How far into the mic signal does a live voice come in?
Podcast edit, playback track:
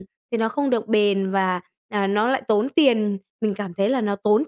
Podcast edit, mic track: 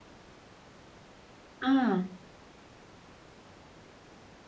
2 s

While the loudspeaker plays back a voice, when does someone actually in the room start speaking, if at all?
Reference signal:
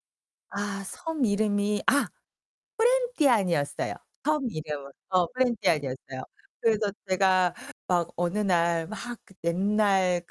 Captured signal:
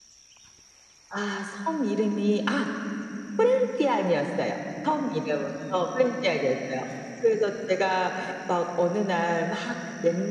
none

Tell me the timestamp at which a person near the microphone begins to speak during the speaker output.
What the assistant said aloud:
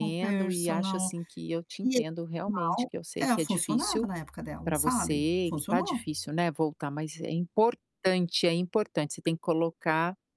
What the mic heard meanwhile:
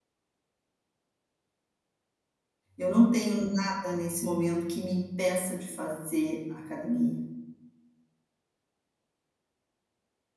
3 s

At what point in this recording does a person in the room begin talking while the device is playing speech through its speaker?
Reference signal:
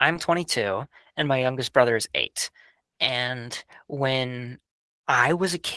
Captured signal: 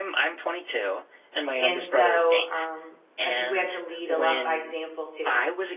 2 s

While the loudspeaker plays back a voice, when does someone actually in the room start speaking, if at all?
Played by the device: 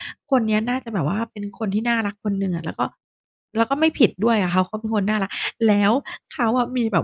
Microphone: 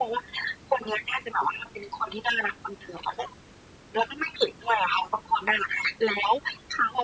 none

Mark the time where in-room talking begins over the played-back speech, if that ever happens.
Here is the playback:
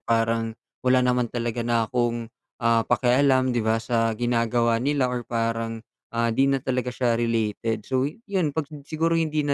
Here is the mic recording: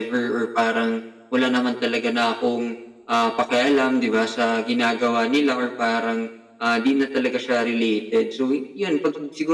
none

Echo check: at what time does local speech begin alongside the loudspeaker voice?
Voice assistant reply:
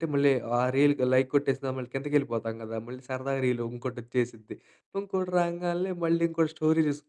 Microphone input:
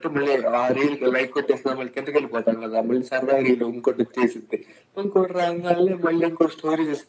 none

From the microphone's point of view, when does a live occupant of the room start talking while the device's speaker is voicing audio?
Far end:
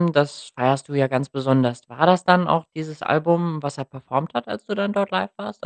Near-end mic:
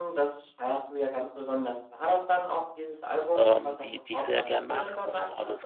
3 s

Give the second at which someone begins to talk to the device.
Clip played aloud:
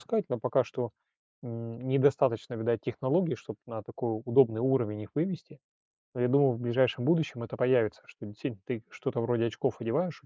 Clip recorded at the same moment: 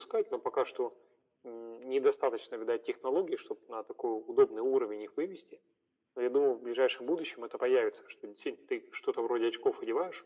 none

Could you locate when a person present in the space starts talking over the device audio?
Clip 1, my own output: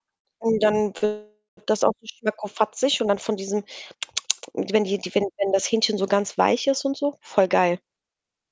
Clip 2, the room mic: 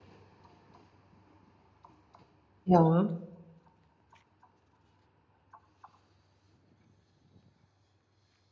3 s

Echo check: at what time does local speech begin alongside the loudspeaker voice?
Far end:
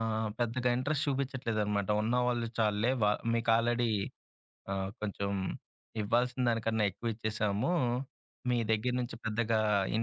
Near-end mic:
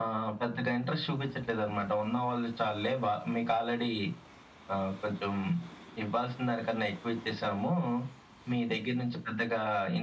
none

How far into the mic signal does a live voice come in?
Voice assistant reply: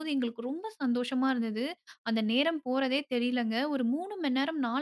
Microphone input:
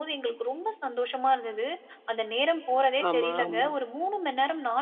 3 s

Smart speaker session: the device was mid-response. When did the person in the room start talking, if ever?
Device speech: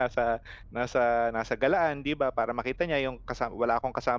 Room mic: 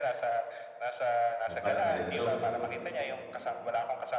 1 s

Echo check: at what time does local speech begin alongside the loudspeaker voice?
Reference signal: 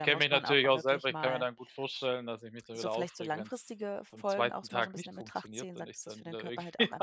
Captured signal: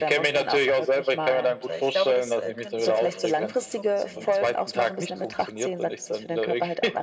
1 s

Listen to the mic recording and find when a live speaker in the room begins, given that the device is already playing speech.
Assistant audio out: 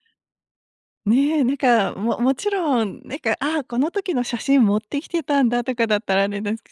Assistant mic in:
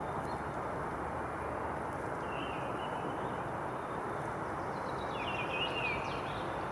none

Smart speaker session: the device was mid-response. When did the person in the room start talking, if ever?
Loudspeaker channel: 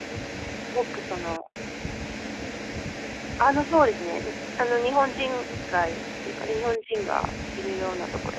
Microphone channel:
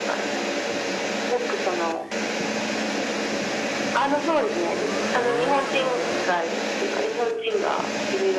none

